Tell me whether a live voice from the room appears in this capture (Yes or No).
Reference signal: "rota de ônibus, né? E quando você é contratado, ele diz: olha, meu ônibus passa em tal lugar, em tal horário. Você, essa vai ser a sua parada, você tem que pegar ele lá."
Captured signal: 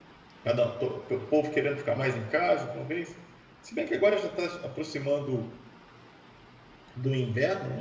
Yes